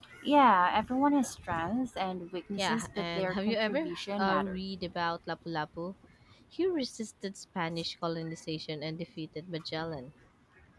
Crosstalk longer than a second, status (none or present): present